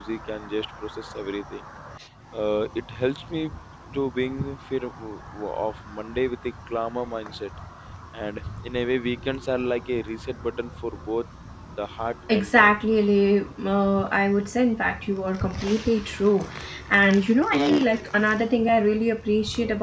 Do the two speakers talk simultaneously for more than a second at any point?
No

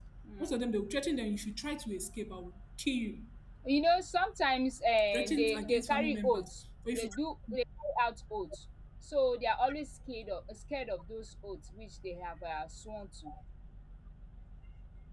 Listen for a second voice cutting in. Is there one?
Yes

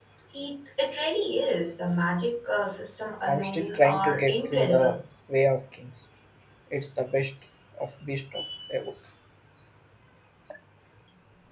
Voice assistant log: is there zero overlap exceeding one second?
No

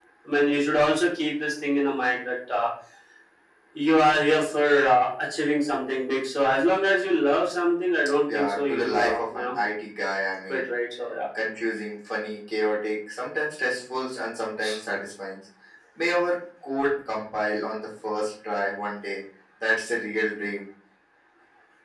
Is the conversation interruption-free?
No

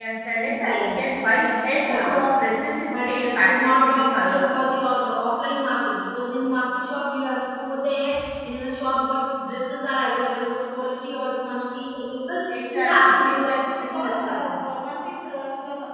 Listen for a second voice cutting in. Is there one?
Yes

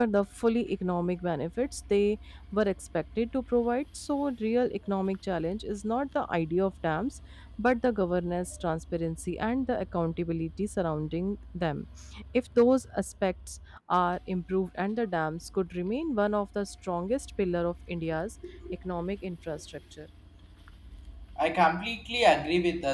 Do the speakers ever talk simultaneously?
No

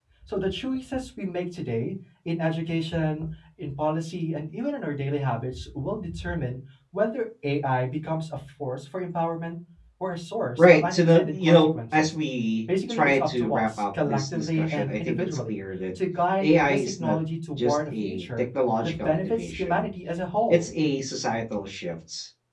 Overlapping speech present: Yes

